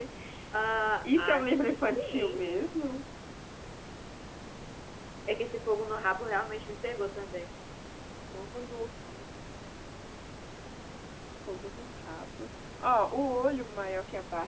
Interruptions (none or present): present